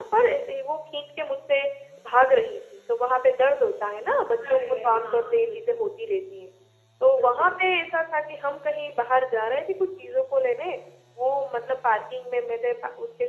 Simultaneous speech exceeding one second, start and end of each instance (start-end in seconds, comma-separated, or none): 4.5-5.8